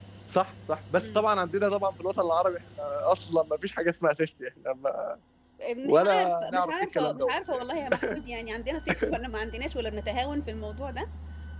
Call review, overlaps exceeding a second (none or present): present